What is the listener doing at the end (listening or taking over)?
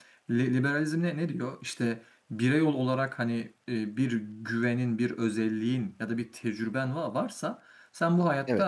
listening